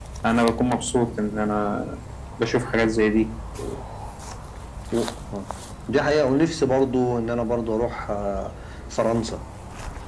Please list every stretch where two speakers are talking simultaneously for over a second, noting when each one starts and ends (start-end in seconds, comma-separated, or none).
none